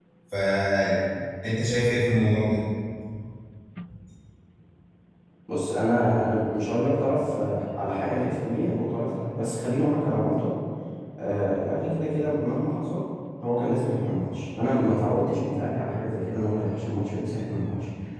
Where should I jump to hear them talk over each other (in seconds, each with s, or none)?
none